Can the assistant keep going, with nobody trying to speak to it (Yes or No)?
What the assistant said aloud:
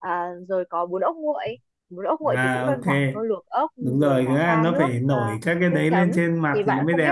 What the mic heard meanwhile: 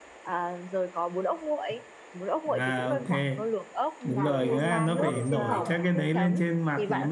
No